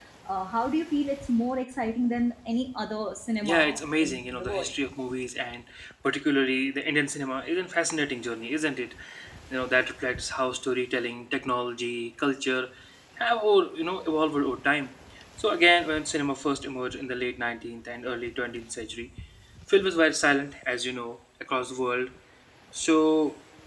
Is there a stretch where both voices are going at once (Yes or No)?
Yes